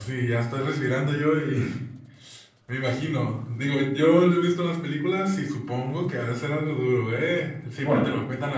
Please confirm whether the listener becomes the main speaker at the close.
No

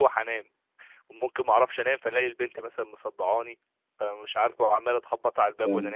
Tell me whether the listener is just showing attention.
Yes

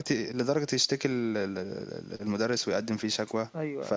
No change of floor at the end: Yes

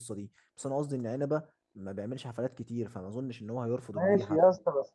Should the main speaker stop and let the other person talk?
Yes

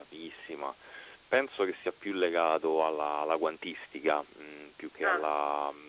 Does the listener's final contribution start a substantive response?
No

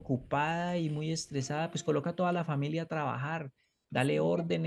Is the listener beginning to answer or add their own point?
No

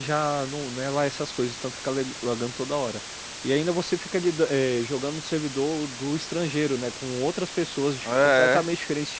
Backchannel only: Yes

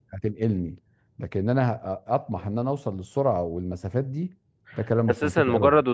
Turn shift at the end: Yes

